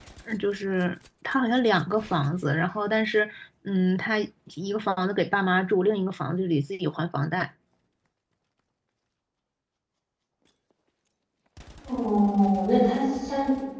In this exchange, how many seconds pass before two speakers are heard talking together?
none

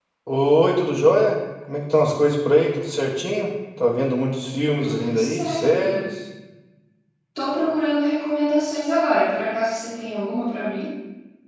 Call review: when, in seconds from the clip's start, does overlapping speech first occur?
4.8 s

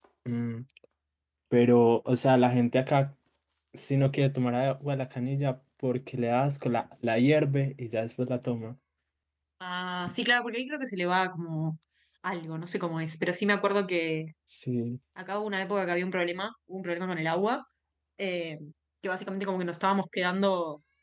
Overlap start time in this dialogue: none

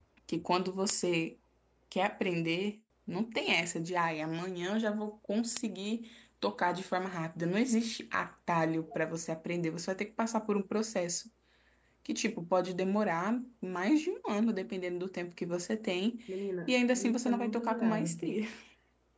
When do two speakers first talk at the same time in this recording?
16.7 s

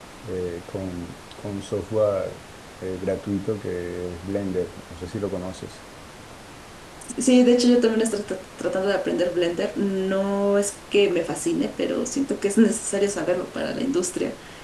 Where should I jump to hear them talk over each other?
none

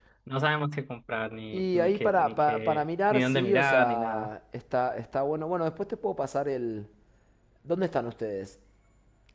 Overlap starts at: 1.5 s

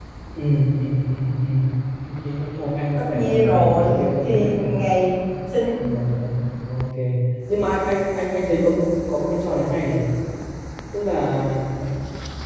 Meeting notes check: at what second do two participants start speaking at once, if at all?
3.1 s

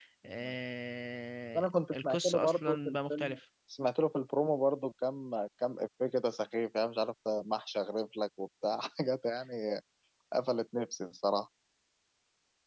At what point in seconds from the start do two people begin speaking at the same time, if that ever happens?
1.6 s

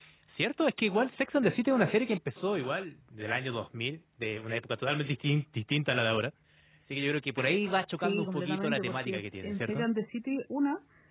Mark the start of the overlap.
7.9 s

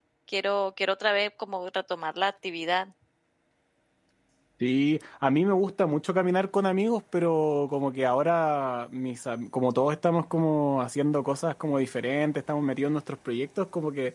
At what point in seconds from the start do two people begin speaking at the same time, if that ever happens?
none

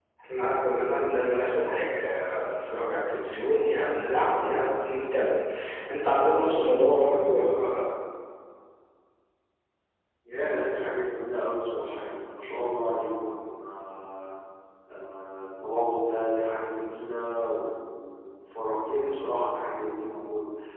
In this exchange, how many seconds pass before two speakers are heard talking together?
none

